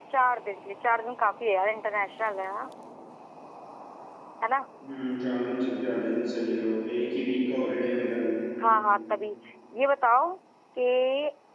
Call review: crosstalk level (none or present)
none